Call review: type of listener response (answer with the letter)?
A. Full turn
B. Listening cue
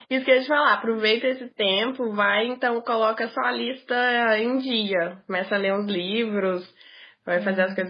B